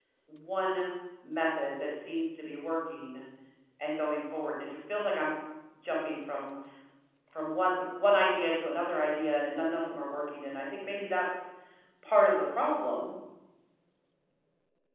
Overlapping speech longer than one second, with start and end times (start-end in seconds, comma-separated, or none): none